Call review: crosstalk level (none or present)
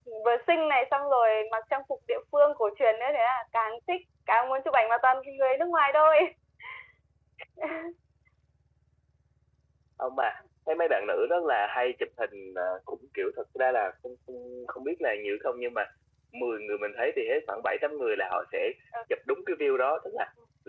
none